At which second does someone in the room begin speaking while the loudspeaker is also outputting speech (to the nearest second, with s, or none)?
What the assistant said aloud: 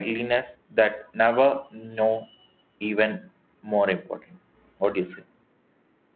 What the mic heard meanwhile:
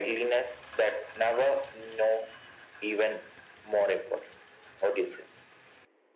none